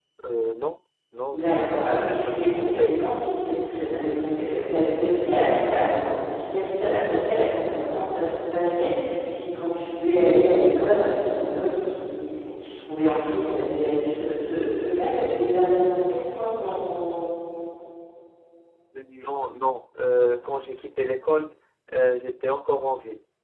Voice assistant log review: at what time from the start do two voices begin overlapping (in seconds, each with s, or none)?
1.3 s